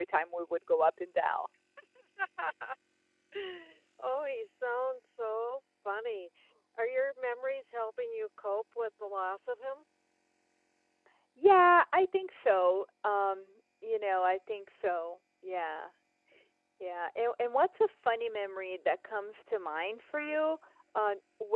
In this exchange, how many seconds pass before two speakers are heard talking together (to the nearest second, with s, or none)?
none